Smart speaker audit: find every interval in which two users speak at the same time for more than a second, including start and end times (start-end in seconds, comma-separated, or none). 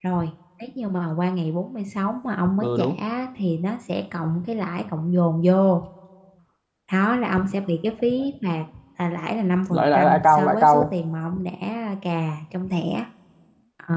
9.7-10.9